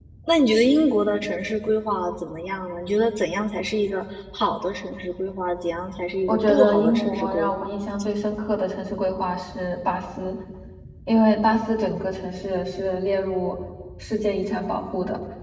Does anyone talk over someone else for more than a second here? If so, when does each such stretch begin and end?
6.3-7.7

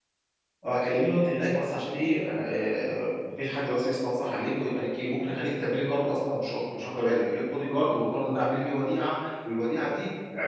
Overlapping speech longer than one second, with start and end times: none

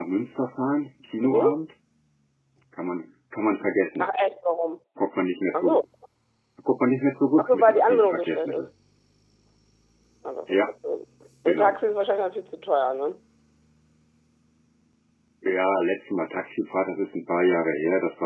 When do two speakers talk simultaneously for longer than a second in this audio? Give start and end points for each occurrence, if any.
7.4-8.7

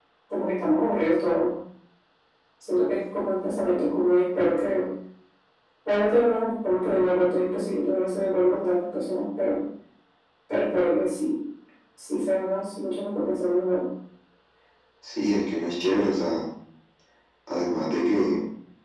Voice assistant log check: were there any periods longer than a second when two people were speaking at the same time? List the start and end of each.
none

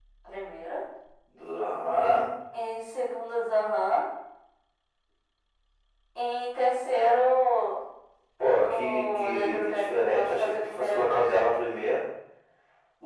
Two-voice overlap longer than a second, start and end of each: 8.7-11.1

